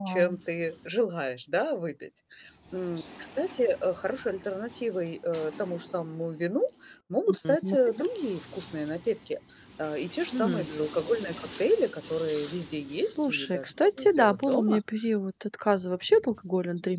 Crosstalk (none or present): present